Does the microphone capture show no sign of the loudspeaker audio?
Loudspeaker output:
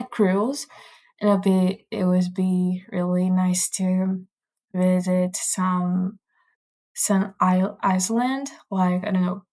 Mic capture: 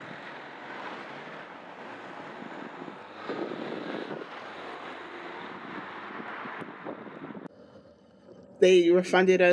Yes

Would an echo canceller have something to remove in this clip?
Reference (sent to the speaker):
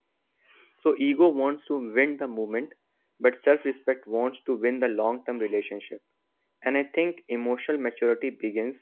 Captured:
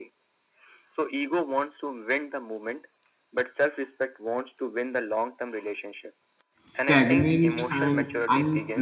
Yes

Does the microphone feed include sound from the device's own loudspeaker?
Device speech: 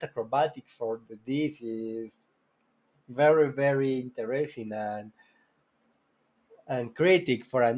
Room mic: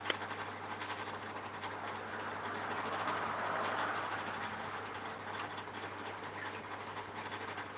No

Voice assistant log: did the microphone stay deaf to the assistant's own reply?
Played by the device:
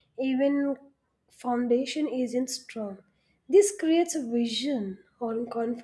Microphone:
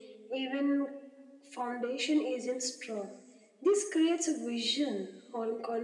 No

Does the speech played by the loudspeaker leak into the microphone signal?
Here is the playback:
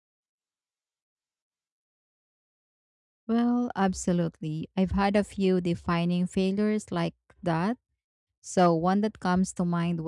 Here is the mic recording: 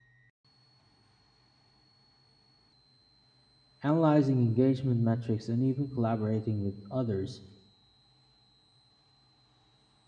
No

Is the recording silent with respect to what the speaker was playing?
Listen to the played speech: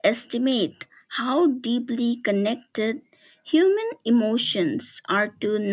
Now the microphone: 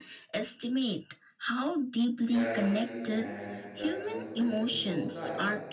No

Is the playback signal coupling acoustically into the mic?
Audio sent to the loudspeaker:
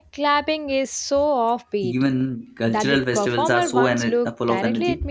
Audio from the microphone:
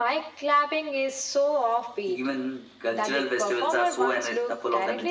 Yes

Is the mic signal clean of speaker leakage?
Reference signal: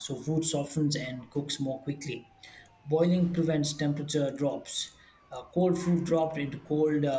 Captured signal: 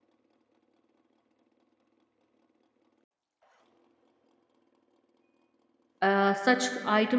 Yes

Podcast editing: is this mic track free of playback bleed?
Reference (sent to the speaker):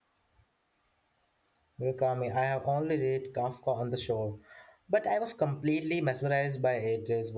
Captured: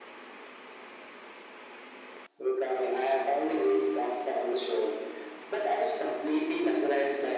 No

